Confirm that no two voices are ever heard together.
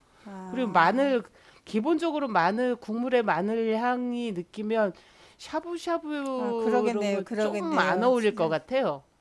No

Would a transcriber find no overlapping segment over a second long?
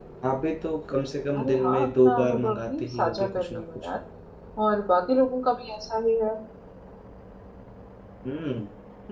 No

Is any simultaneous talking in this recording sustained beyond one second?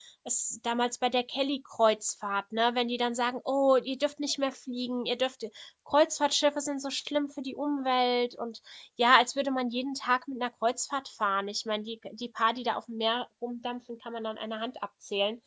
No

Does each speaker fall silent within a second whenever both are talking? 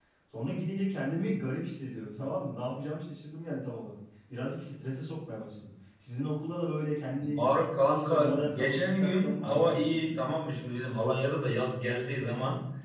No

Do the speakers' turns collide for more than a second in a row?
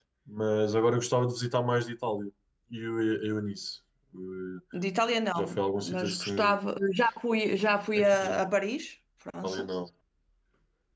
Yes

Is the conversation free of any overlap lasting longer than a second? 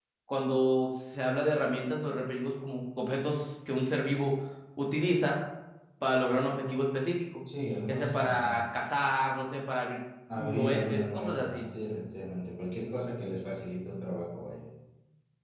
No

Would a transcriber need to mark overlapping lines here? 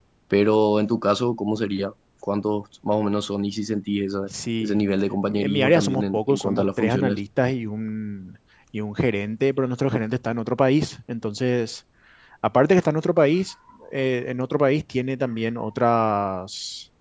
Yes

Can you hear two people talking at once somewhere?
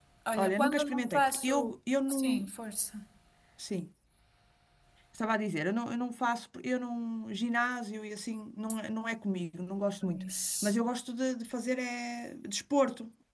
Yes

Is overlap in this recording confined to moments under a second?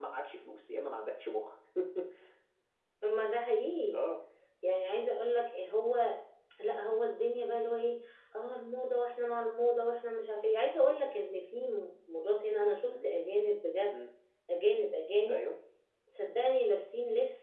Yes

